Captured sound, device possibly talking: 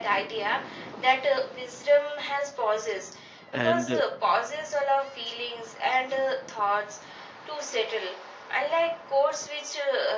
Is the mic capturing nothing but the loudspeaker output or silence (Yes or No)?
No